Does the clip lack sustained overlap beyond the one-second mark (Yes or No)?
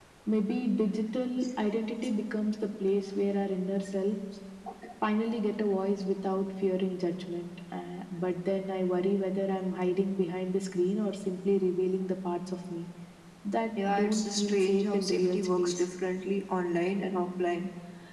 No